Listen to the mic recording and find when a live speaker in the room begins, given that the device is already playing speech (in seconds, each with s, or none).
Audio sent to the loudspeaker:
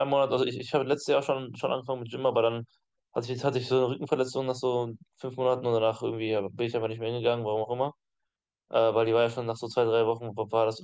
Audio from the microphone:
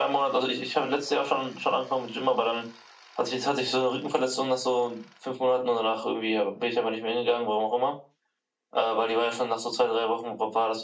none